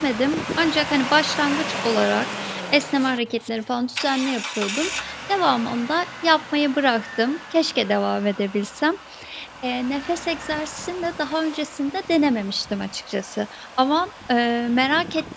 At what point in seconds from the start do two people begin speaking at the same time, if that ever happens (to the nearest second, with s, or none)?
none